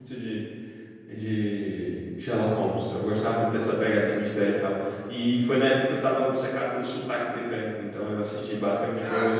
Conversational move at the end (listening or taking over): taking over